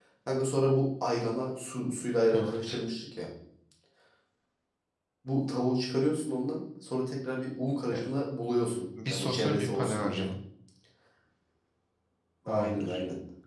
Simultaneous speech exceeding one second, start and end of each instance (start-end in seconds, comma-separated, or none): 9.1-10.3